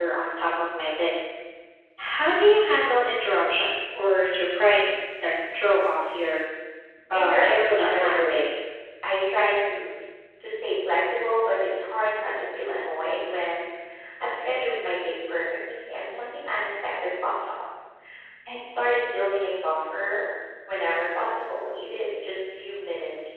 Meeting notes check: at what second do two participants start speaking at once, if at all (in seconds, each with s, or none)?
7.1 s